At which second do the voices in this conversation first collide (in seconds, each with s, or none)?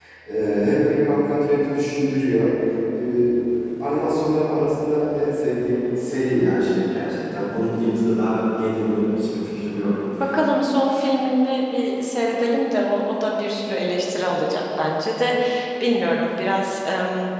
none